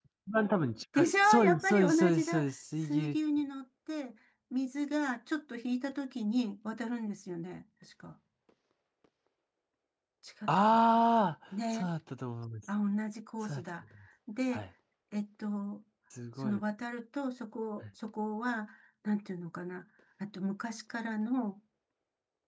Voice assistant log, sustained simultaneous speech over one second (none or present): present